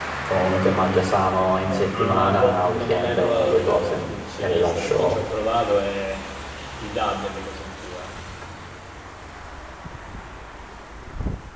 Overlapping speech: Yes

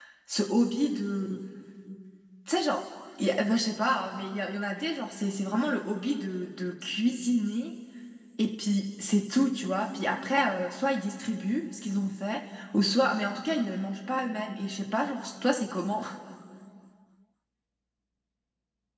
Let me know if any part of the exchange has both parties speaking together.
No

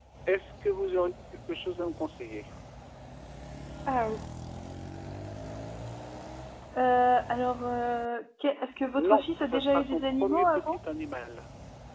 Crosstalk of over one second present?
Yes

